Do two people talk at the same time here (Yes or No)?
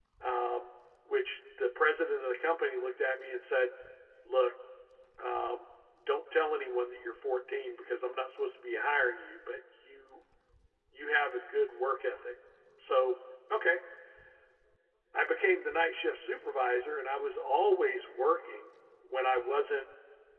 No